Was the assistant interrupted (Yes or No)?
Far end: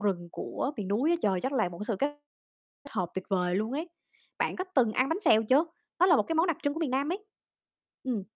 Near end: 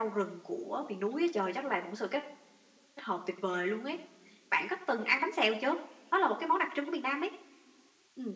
No